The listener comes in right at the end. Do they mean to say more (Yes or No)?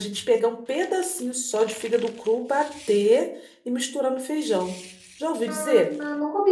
Yes